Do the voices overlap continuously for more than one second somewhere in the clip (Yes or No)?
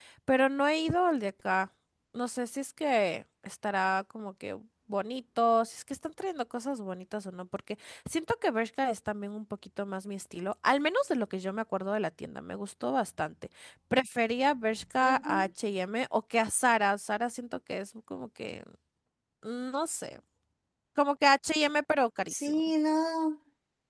No